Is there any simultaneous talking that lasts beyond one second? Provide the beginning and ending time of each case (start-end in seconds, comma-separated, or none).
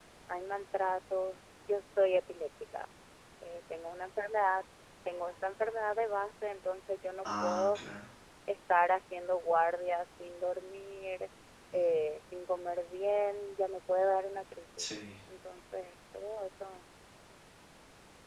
none